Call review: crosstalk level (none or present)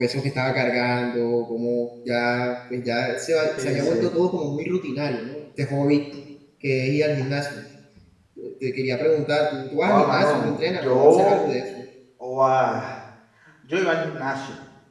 present